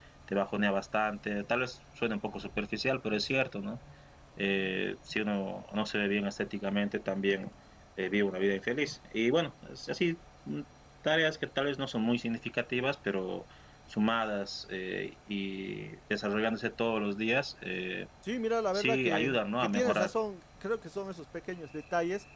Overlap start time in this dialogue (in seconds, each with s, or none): 18.7 s